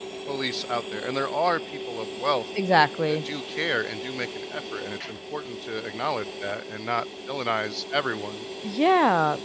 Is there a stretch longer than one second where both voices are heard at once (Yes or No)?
No